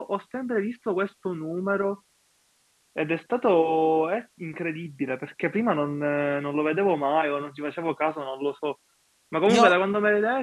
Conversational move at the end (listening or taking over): listening